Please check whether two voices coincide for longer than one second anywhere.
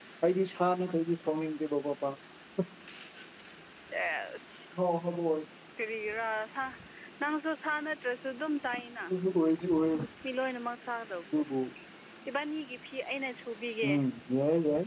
No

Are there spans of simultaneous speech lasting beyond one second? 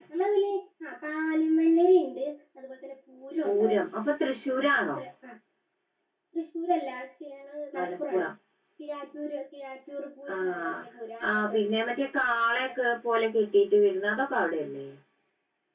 No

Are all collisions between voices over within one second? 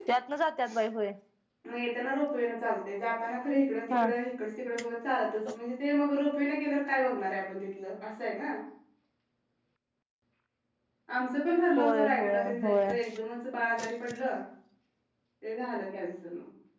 No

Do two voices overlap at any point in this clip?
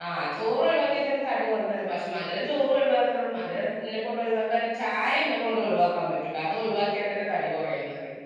No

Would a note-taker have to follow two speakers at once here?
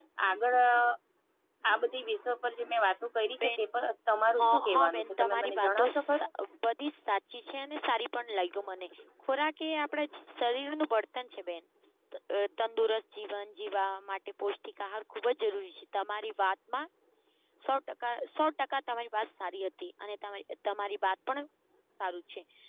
Yes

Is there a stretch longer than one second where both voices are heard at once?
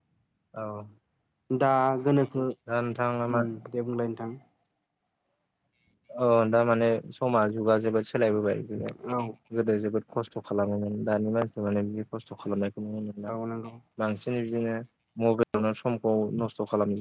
No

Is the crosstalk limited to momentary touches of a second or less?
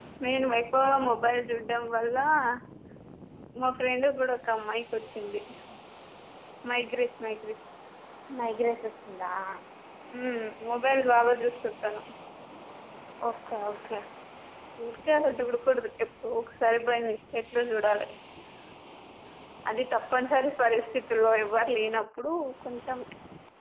Yes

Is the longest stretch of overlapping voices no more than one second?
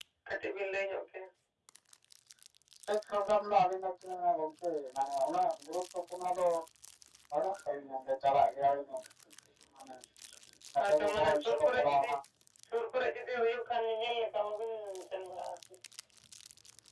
No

